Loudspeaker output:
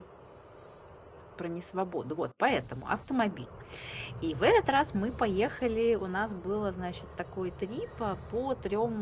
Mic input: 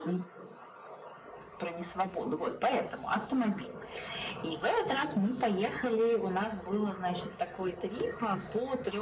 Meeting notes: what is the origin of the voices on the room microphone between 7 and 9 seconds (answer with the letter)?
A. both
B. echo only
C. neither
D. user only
B